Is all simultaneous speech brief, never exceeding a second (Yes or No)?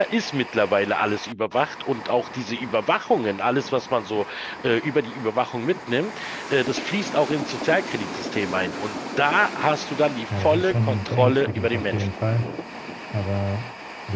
No